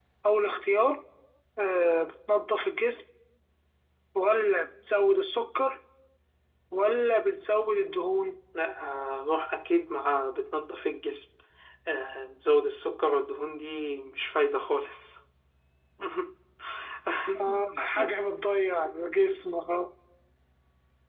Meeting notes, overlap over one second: none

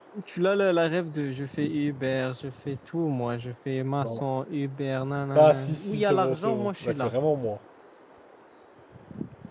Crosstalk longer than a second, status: present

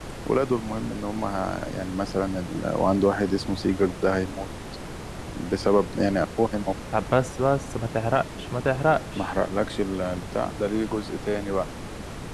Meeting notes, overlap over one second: none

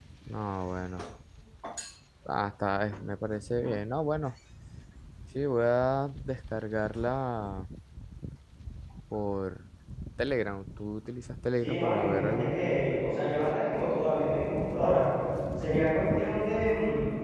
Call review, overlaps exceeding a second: present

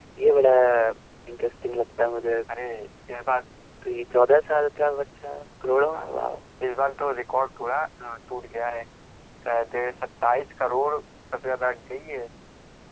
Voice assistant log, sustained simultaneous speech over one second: none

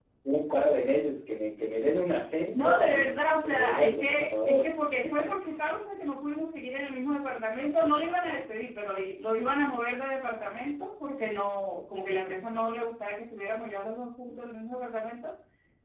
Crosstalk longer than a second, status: present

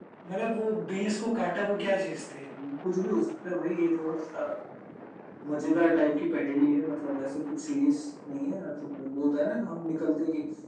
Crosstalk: none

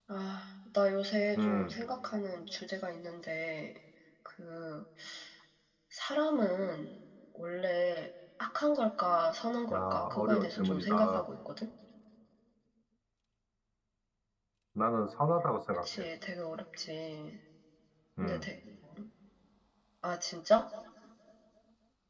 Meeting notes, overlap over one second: present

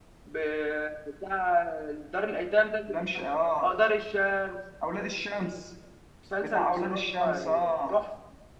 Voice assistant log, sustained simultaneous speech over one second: present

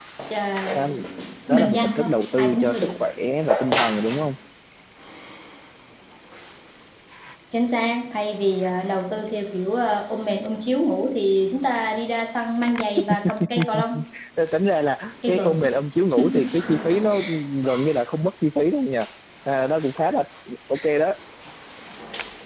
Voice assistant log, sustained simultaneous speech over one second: present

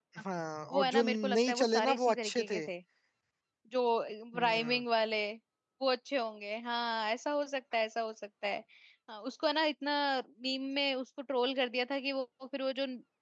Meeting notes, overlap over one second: present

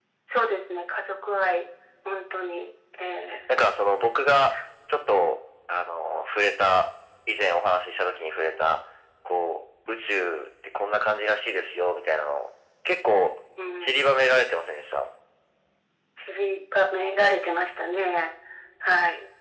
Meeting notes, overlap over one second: none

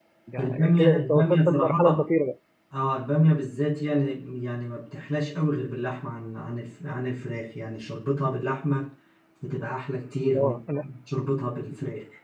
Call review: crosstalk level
present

